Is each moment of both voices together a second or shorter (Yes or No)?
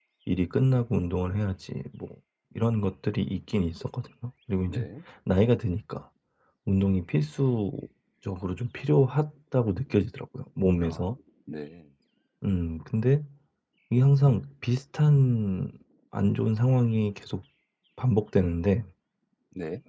Yes